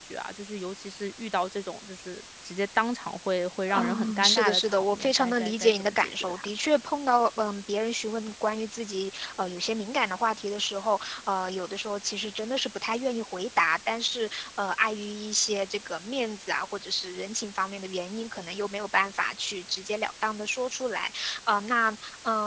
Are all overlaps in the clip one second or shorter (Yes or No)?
No